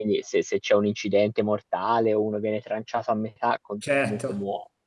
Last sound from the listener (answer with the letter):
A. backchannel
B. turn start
A